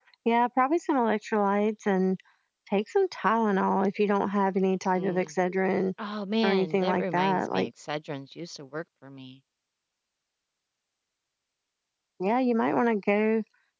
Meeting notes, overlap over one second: present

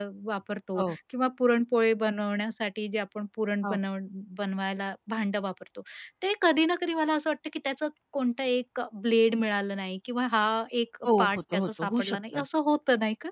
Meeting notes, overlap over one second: present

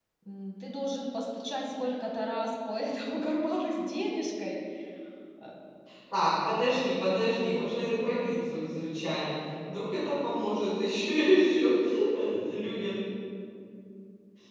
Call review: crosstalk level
none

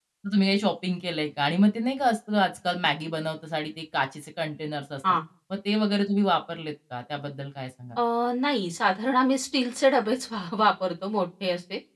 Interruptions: none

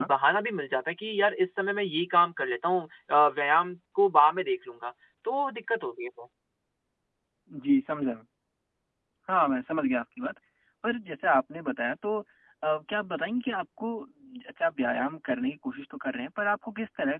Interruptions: none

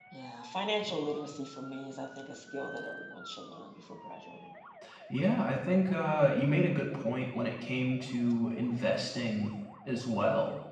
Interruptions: none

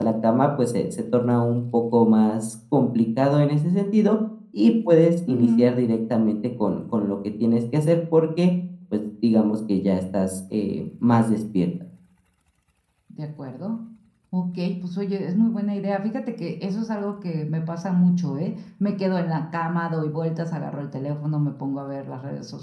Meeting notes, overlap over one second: none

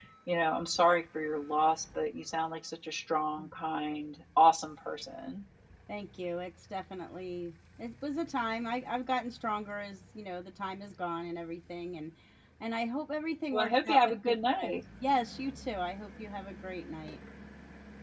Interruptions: present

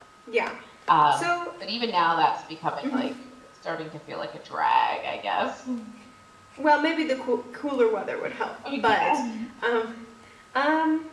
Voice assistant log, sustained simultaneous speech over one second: none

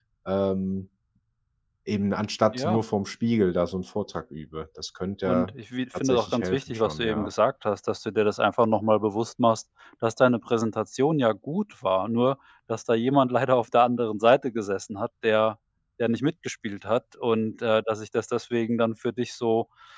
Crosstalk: present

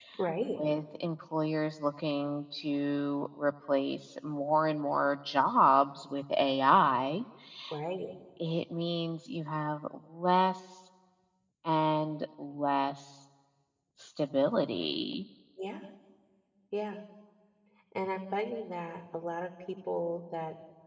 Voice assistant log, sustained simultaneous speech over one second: none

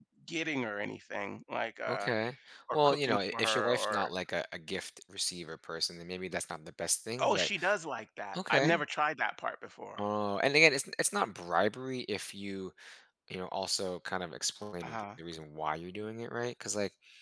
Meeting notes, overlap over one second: present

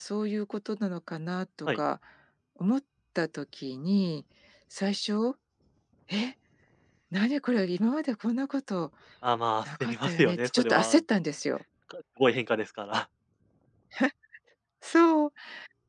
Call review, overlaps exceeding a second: present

